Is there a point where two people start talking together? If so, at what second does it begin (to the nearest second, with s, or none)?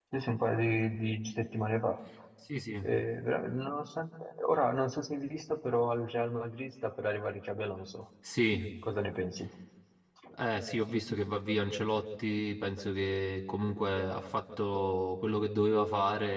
none